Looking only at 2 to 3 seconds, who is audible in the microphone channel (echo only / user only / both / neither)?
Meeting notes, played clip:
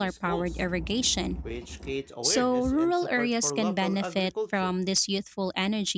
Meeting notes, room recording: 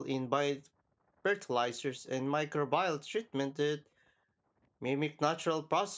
user only